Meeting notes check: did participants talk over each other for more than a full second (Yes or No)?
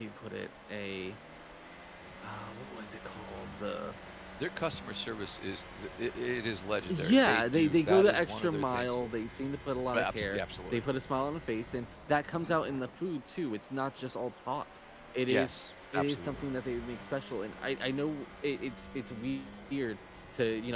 Yes